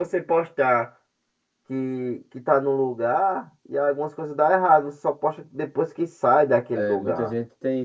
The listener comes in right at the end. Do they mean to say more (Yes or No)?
Yes